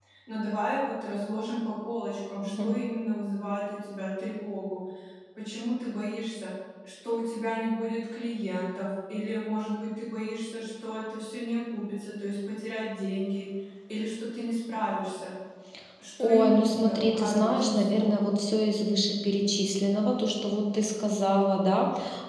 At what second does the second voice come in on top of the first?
16.2 s

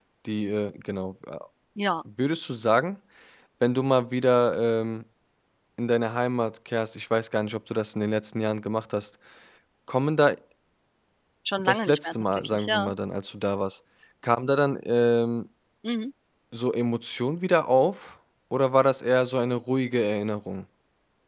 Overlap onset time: 11.6 s

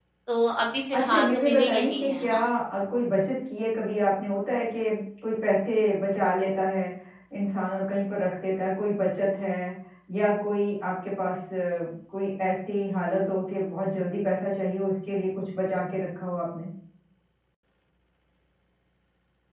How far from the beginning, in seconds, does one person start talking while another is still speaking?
0.9 s

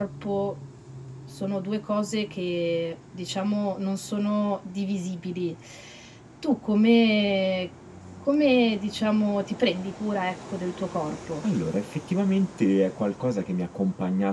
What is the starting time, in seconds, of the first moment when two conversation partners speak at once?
none

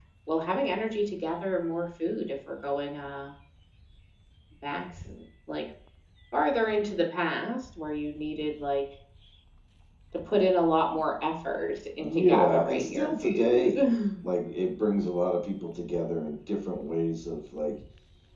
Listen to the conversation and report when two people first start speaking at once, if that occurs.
11.9 s

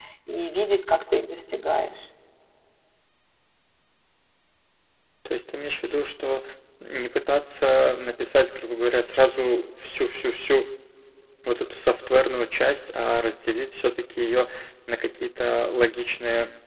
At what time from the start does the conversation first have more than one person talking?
none

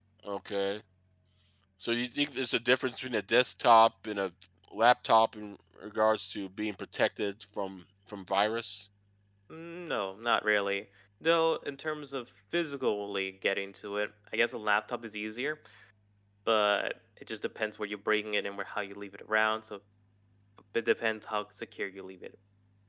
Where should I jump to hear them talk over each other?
none

